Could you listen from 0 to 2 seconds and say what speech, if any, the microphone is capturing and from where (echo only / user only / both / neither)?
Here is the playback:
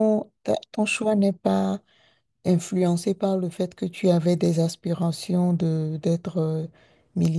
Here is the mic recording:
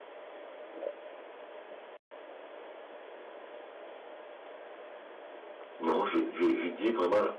neither